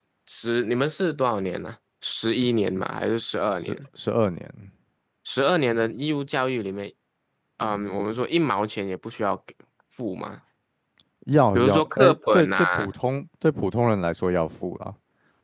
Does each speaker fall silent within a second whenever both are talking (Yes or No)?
No